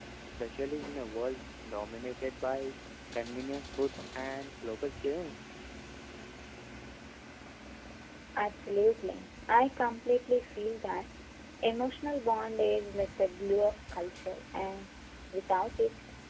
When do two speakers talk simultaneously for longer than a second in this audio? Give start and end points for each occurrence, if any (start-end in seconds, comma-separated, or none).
none